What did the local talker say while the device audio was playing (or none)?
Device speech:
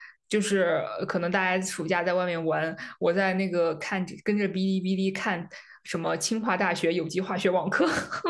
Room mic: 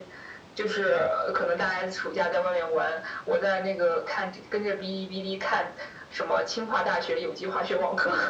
none